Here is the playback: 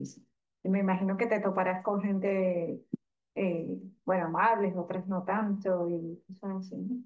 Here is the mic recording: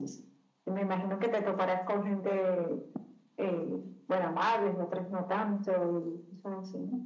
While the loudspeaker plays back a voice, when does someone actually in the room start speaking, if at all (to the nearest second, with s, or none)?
none